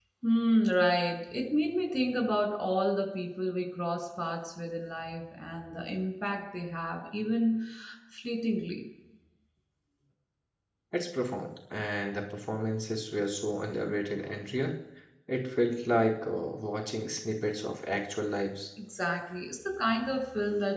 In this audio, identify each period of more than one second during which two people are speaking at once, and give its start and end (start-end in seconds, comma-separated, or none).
none